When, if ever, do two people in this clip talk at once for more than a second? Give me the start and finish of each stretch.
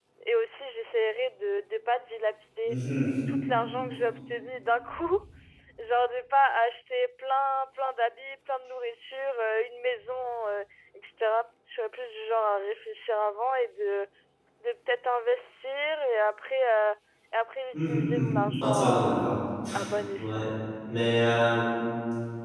17.7-19.3

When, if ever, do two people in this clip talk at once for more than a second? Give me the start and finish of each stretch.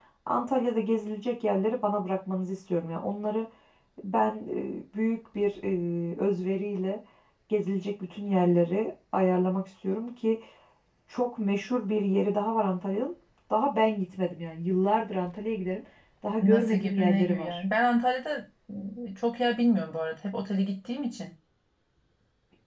16.4-17.6

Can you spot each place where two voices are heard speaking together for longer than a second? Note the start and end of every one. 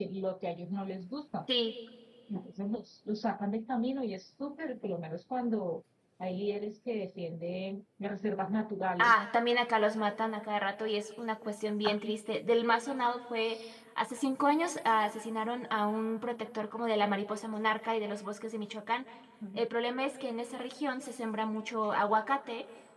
none

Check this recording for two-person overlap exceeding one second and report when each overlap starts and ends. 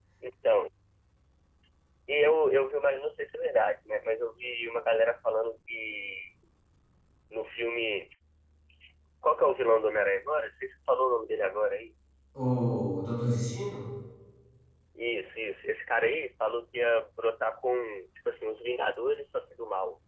none

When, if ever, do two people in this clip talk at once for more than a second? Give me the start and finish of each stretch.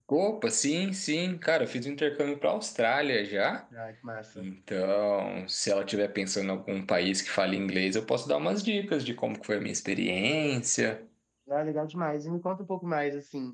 none

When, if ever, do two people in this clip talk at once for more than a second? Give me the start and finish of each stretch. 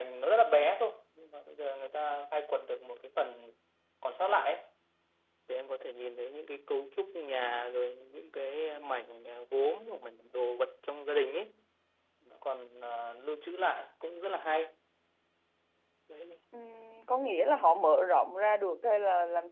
none

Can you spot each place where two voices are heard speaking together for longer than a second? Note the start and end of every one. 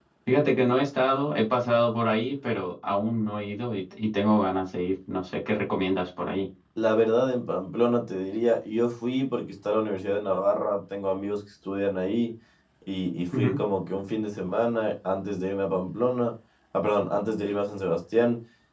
none

